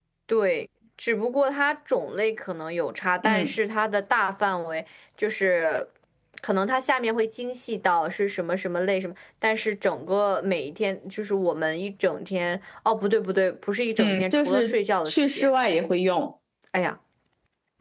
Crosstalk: present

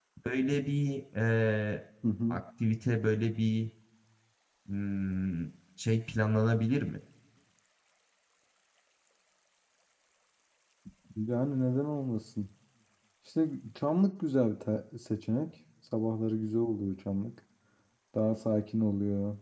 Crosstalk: none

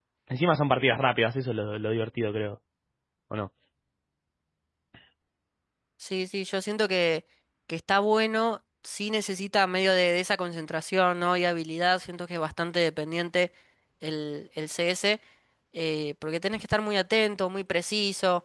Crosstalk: none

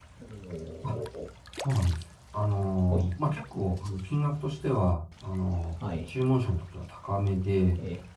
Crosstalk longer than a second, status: none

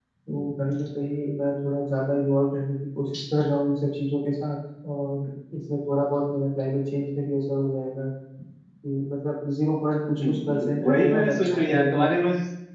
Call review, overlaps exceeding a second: present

